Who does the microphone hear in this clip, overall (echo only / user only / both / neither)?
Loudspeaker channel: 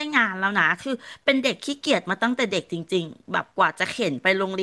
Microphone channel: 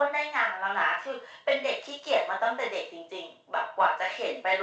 echo only